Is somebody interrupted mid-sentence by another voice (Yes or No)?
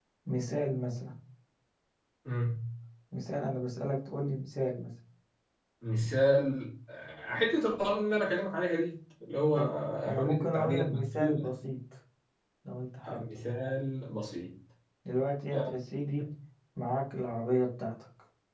Yes